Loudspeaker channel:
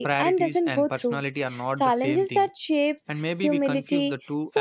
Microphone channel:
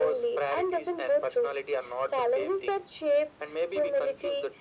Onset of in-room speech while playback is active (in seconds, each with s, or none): none